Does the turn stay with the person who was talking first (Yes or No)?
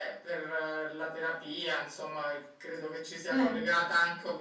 Yes